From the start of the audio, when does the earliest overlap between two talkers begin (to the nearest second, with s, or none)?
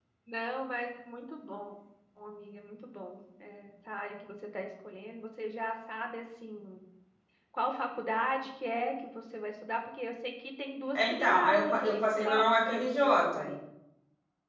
11 s